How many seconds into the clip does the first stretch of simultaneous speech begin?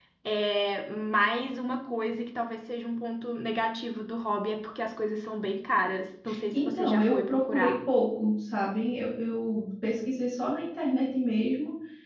7 s

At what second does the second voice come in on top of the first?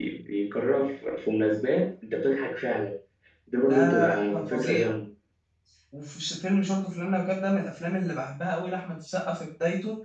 4 s

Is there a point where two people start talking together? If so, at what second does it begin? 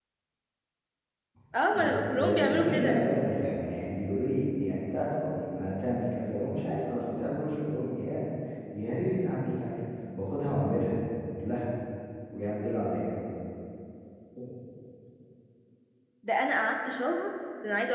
2 s

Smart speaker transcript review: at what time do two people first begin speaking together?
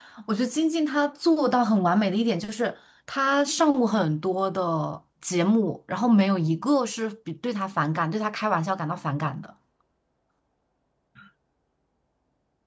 none

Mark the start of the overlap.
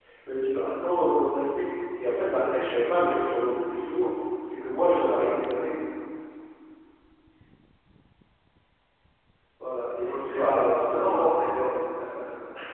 10 s

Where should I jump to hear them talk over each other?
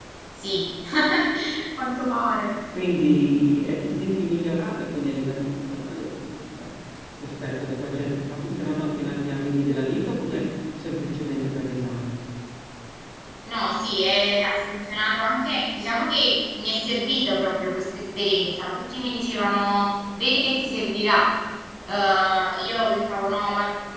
none

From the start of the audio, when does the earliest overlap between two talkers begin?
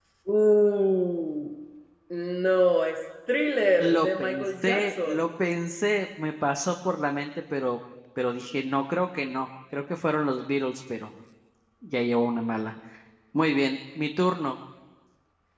4 s

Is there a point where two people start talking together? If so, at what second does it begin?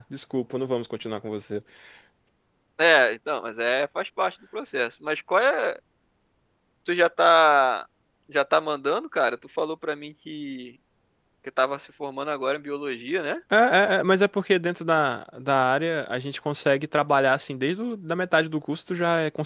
none

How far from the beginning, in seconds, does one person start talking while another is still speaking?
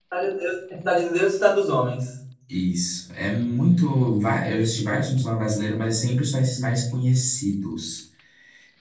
none

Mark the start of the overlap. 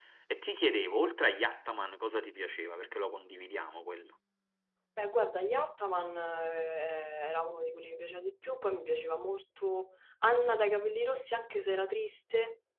none

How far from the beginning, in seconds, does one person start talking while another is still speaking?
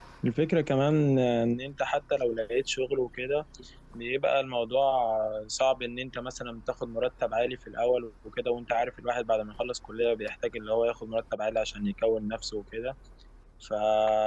none

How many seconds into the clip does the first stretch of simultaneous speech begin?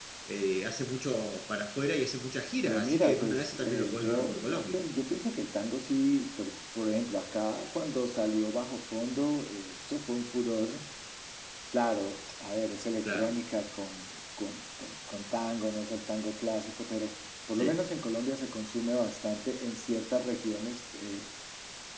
3 s

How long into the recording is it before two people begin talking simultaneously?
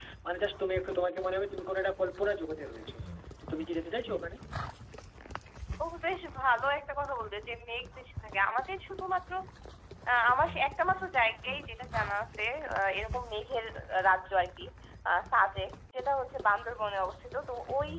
none

